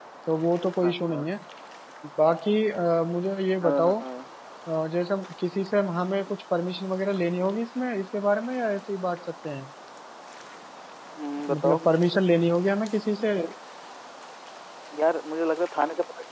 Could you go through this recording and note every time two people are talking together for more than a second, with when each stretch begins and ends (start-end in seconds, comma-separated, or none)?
none